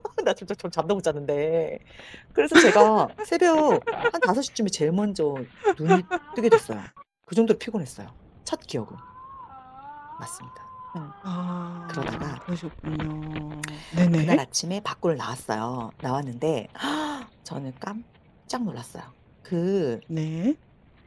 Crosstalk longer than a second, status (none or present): none